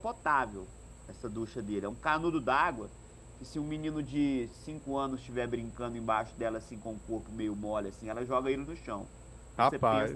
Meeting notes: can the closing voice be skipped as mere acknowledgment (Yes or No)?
Yes